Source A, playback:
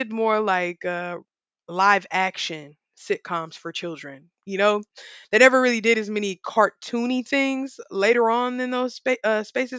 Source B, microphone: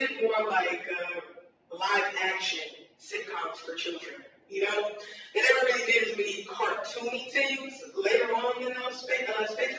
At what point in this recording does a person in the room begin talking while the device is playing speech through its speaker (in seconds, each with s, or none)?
none